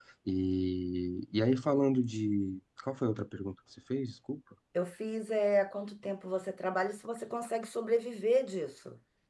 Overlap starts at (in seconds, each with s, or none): none